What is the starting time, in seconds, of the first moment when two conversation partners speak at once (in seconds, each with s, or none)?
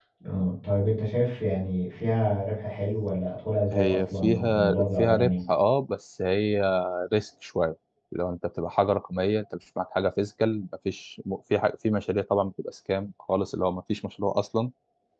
3.7 s